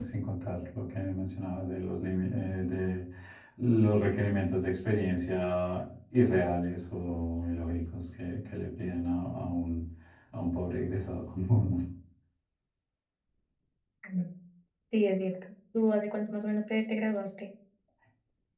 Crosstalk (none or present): none